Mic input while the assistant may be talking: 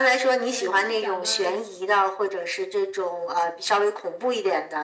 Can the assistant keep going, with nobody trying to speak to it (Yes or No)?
No